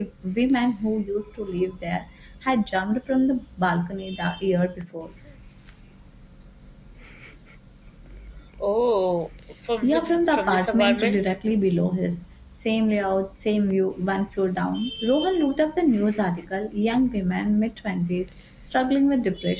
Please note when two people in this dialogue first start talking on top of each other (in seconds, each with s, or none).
9.8 s